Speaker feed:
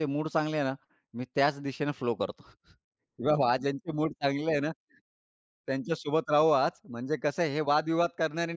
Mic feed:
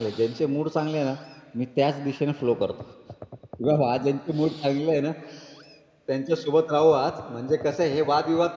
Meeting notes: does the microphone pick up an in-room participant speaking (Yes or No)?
No